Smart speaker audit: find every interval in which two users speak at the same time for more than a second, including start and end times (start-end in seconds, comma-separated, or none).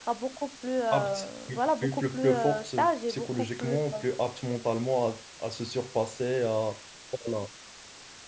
0.9-4.0